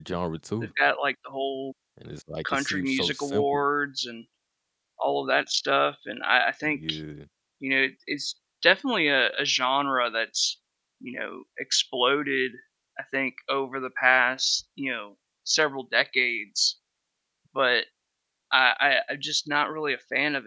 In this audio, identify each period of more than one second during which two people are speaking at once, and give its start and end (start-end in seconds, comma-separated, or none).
2.4-3.6